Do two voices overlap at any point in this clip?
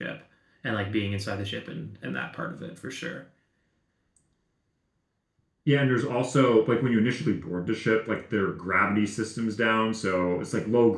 No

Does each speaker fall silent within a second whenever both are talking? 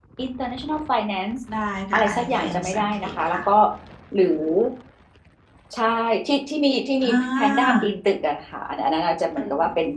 No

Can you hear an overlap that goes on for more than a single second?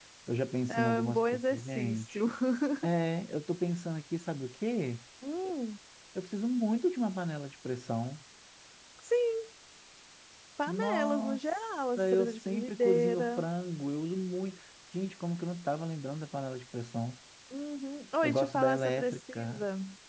Yes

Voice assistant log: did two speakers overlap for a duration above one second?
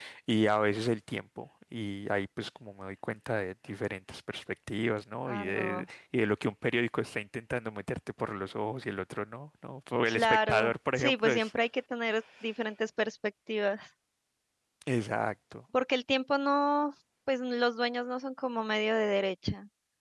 Yes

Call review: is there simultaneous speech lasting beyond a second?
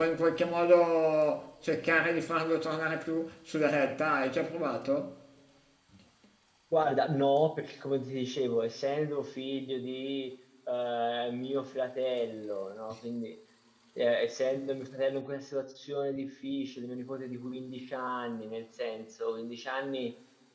No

